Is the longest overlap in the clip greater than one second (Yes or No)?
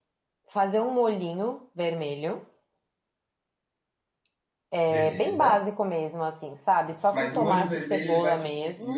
Yes